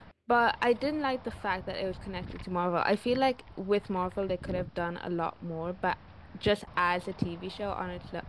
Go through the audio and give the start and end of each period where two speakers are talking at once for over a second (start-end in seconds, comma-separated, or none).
none